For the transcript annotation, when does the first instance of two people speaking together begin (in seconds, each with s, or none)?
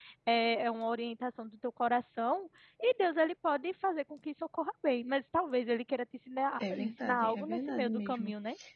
6.6 s